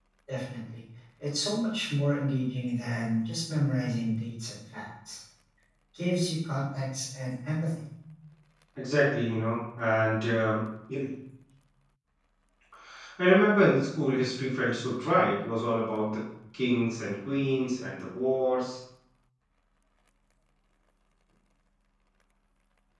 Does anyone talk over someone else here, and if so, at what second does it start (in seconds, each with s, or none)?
none